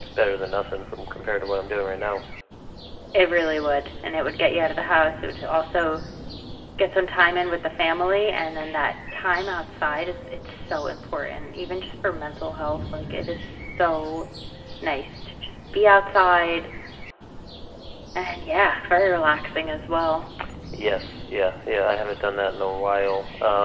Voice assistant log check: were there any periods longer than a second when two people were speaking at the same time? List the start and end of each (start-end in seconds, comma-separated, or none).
none